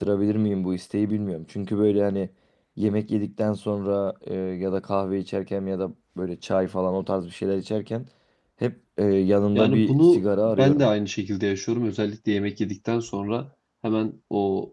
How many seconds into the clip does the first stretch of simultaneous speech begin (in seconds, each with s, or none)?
9.6 s